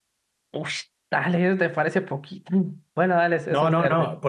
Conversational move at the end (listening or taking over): taking over